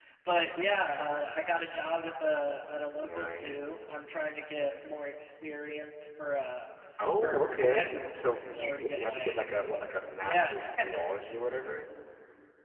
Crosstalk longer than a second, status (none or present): present